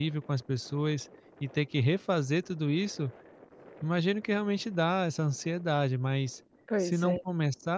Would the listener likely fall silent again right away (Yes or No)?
Yes